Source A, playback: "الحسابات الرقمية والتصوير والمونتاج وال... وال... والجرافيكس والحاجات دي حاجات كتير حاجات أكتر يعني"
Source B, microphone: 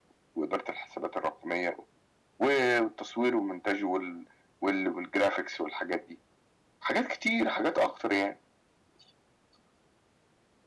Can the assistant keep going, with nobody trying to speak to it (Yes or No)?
Yes